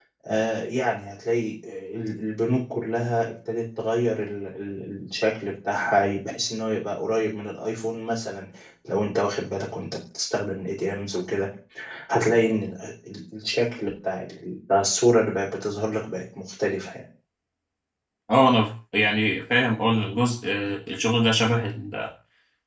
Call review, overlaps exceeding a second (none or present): none